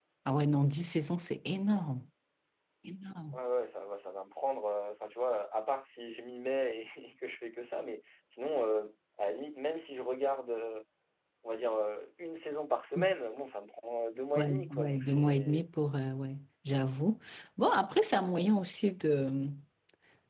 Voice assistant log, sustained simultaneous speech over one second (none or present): present